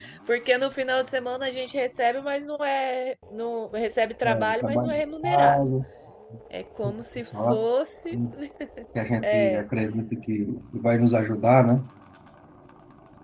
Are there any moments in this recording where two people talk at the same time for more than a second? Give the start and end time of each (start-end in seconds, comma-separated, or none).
4.2-5.6